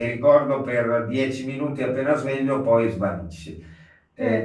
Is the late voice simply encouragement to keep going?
No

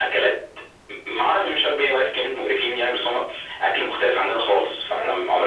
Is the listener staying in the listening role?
No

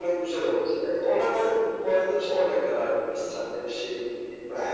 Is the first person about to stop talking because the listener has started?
No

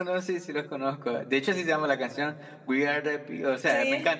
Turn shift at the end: No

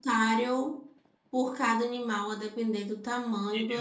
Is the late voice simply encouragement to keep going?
No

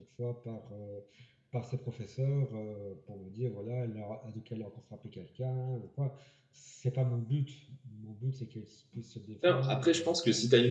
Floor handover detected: Yes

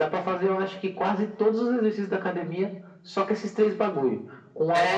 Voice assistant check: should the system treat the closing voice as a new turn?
No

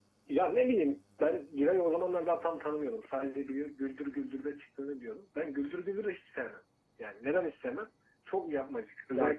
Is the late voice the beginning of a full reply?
No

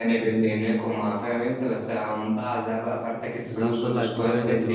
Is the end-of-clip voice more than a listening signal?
Yes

